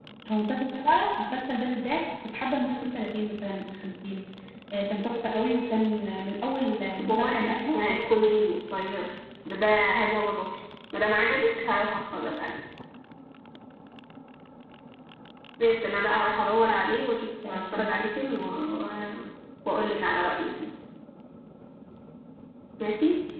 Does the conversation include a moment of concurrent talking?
Yes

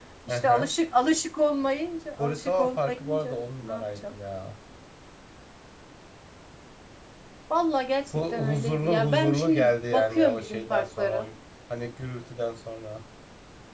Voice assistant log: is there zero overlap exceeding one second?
No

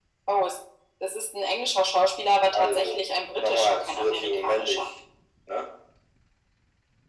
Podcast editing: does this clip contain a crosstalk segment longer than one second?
Yes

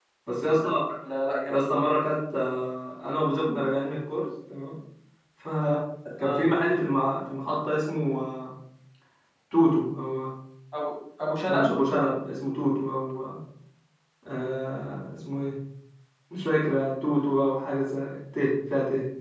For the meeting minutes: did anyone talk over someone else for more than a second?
No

